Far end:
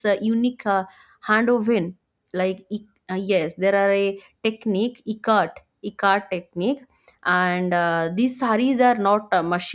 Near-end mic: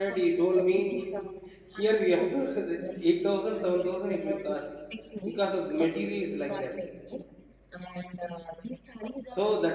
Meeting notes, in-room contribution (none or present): present